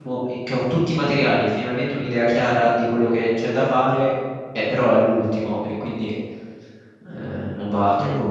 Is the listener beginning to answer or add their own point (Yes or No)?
Yes